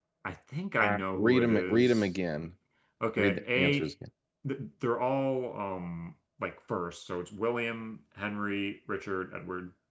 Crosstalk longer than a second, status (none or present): present